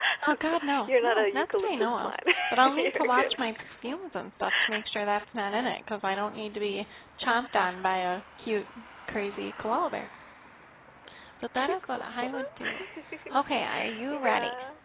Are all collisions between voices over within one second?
No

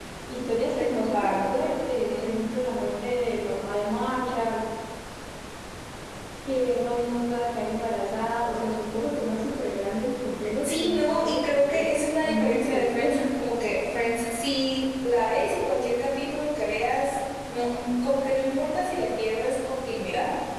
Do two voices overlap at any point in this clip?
Yes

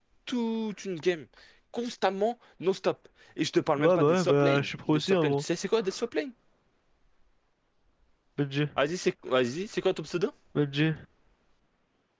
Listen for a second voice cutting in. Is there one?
Yes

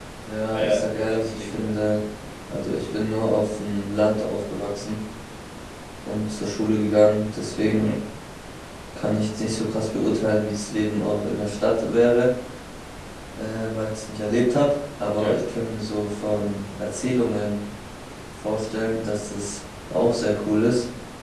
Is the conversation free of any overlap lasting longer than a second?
No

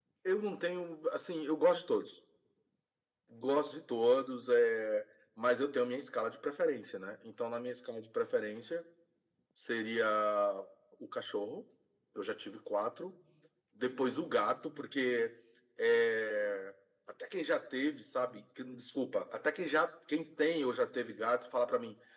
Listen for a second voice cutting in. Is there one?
No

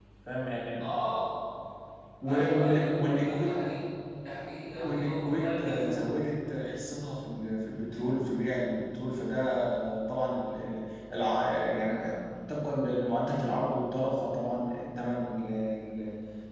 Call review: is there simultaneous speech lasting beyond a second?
Yes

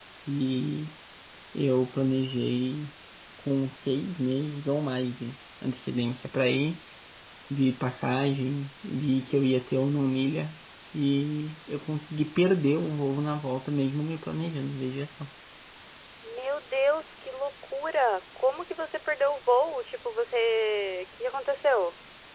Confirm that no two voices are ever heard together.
Yes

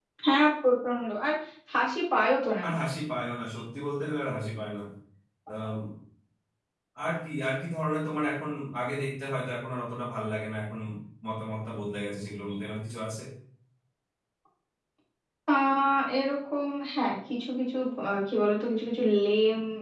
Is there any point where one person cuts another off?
No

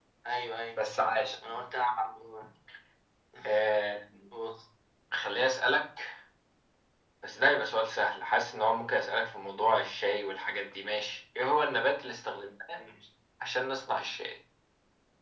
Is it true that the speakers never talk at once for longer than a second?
Yes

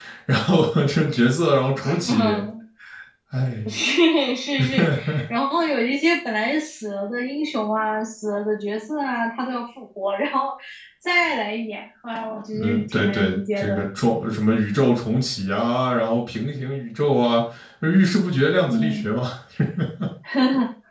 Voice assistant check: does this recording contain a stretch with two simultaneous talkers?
Yes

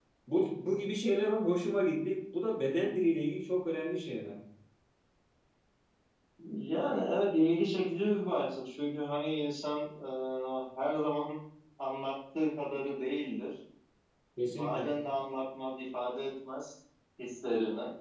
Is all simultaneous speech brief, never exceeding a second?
Yes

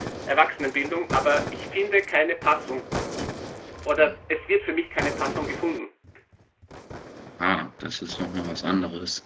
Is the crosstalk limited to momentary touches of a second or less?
Yes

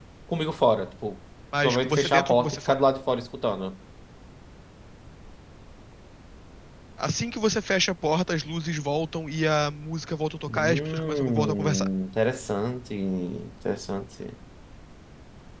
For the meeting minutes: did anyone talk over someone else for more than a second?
Yes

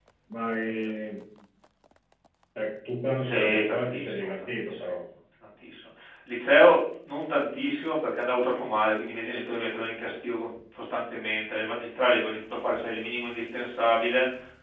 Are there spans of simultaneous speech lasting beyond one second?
Yes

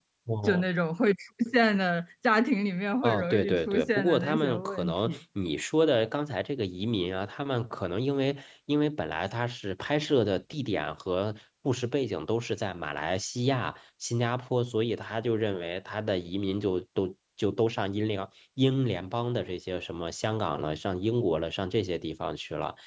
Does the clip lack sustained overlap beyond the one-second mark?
No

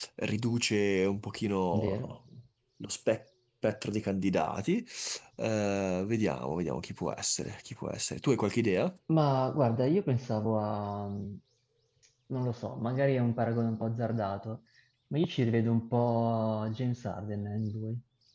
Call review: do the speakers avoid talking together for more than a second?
Yes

